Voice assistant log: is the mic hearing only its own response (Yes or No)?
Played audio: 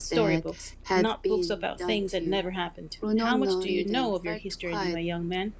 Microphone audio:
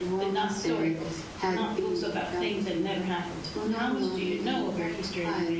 Yes